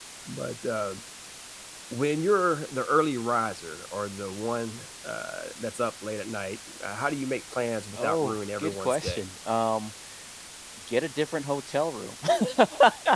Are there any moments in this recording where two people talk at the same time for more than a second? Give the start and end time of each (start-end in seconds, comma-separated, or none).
7.9-9.2